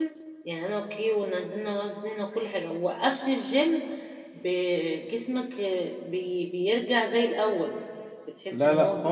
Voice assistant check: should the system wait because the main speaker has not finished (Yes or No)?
No